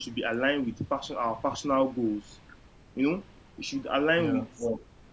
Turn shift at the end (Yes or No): No